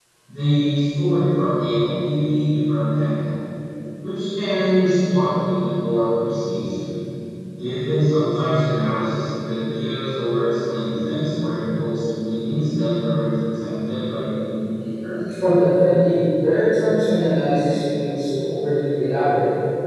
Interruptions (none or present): none